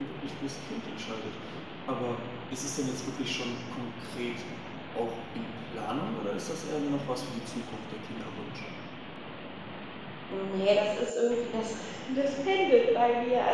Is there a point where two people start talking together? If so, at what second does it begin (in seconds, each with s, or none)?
none